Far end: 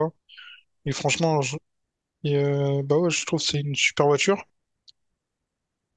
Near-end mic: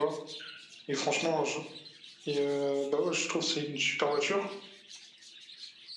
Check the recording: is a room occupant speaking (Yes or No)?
No